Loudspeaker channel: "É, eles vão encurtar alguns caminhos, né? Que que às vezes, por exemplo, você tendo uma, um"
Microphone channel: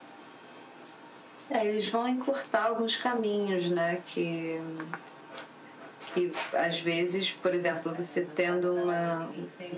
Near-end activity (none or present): present